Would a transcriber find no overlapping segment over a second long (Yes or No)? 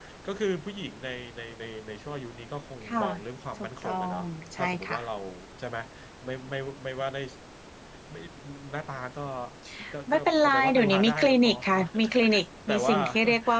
No